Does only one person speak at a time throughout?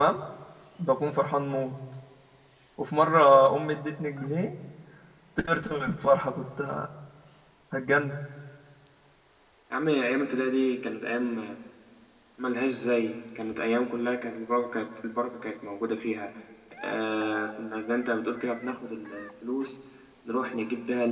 Yes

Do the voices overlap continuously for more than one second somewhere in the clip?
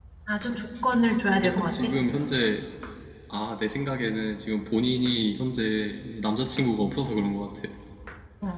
No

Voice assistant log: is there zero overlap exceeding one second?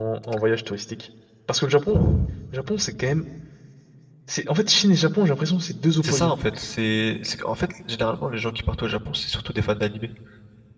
Yes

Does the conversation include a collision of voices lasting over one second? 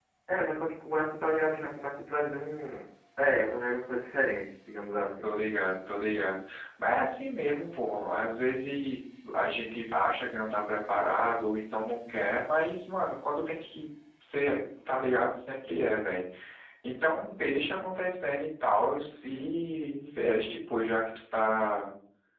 No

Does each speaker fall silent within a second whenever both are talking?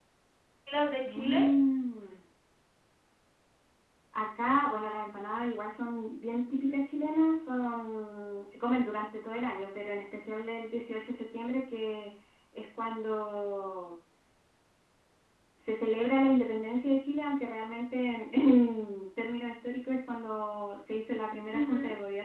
Yes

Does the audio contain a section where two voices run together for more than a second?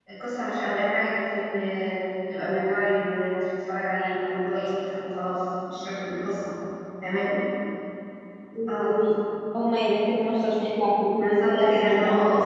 Yes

